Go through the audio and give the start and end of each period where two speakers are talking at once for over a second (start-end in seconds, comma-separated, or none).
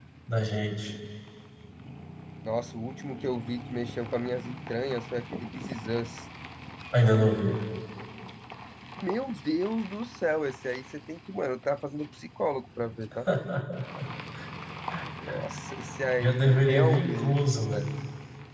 16.2-17.8